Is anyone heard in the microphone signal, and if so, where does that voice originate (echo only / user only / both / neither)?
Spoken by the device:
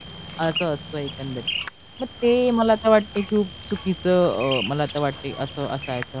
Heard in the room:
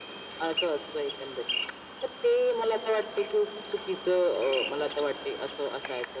echo only